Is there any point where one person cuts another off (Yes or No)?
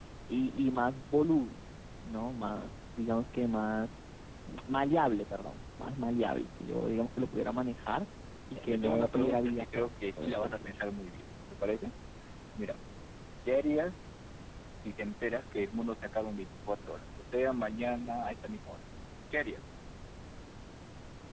Yes